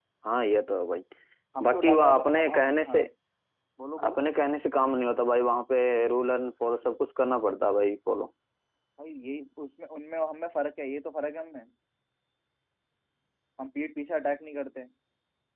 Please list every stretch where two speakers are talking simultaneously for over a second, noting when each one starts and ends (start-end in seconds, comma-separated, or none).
1.6-3.0